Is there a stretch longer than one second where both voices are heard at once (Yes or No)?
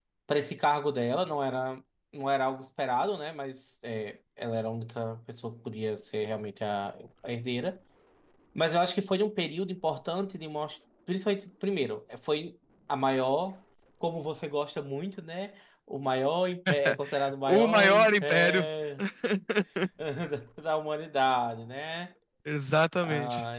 Yes